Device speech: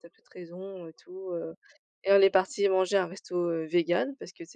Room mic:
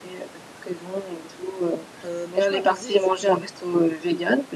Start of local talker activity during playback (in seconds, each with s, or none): 2.0 s